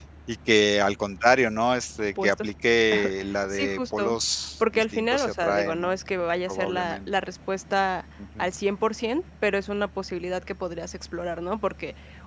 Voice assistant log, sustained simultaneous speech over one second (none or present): present